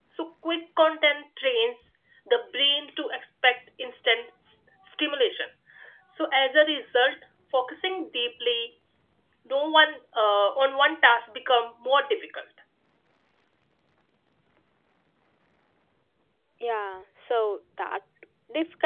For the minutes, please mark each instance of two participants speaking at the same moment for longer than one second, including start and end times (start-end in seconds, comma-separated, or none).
none